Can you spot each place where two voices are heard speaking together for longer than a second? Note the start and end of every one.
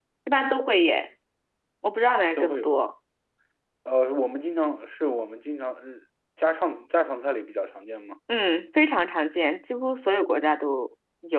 none

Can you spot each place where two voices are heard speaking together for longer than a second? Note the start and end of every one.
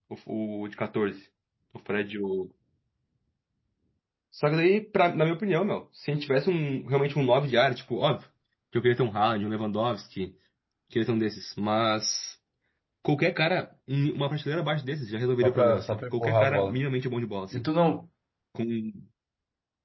15.4-16.8

